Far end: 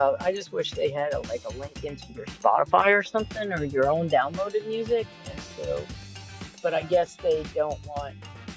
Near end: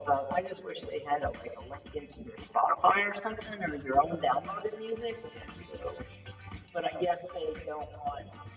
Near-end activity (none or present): none